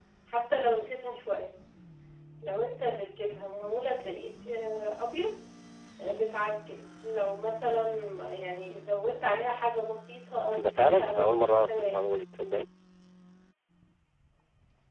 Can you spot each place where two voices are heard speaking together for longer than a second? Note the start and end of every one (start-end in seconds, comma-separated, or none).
10.6-12.1